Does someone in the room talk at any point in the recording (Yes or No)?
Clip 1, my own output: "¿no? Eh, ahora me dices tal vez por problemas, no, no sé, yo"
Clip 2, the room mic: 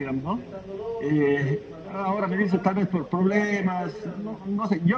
Yes